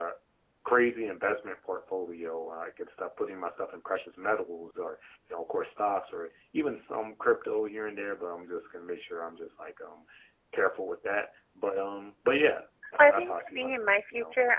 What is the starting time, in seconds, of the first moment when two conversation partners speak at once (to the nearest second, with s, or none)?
13 s